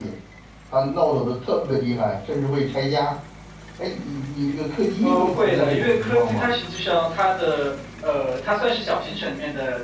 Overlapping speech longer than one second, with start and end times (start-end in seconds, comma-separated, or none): 5.0-6.5